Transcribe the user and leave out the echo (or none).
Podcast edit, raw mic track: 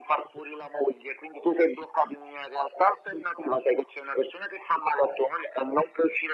none